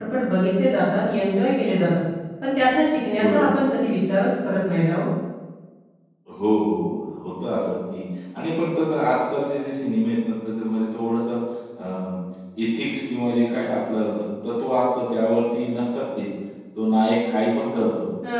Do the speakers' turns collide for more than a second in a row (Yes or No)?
No